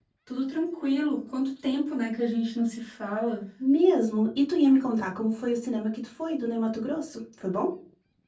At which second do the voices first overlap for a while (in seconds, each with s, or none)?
none